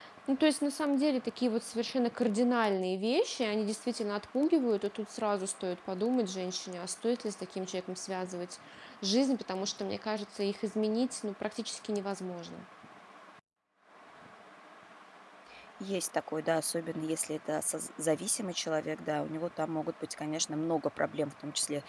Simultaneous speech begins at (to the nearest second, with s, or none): none